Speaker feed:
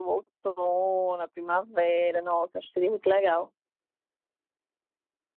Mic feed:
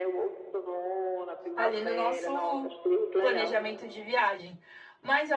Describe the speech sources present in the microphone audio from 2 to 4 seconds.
both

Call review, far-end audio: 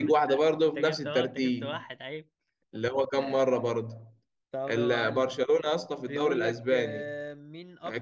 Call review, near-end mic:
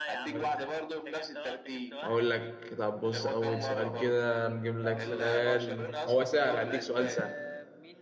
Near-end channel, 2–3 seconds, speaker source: both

